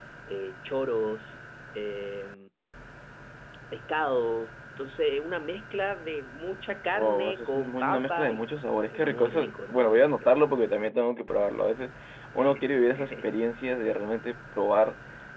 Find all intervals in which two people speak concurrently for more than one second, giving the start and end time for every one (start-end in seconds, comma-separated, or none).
6.9-8.5, 8.9-10.4